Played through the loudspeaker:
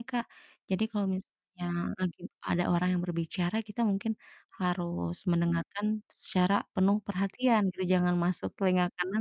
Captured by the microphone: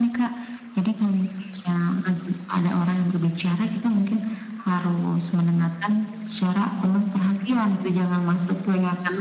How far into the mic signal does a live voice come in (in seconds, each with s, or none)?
none